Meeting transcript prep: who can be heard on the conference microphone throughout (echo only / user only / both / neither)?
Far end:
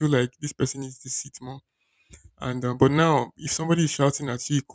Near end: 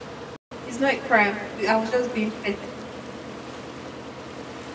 user only